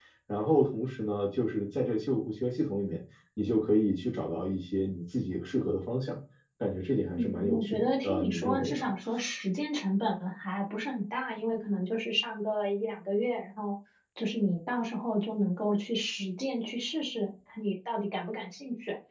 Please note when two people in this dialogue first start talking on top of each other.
7.1 s

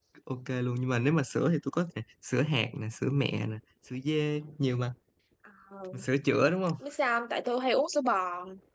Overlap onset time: none

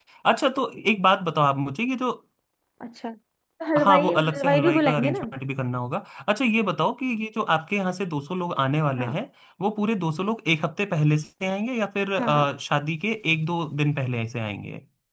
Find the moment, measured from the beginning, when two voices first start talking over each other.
3.8 s

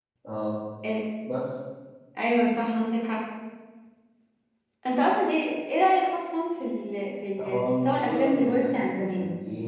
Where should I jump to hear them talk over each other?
7.4 s

